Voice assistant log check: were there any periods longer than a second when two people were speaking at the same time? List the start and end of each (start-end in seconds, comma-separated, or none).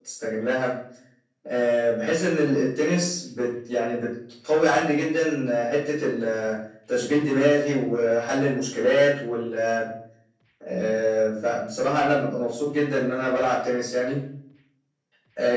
none